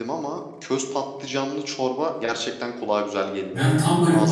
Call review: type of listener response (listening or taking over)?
taking over